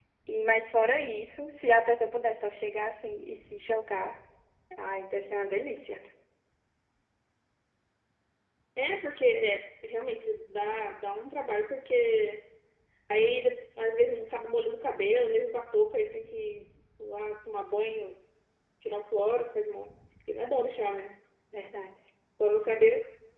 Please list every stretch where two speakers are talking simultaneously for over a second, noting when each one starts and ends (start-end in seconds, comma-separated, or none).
none